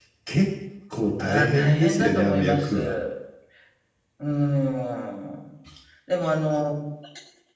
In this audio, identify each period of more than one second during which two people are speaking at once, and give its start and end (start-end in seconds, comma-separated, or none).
1.2-2.9